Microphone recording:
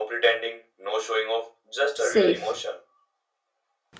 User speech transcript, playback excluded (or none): safe.